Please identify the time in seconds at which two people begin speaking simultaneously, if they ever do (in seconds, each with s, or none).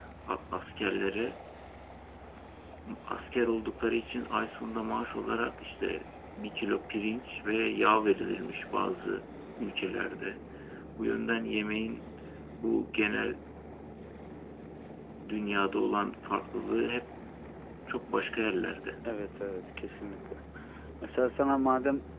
none